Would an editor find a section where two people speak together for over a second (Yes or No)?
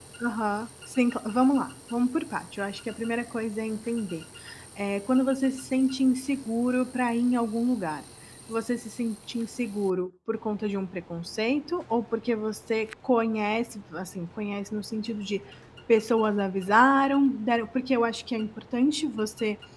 No